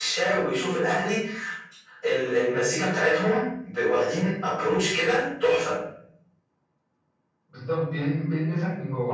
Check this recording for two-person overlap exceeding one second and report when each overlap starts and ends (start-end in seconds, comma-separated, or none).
none